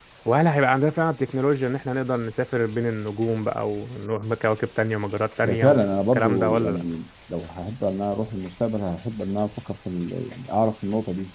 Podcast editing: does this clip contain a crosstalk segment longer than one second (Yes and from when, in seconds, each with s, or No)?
Yes, from 5.4 s